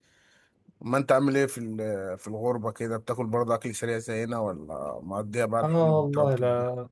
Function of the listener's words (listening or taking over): taking over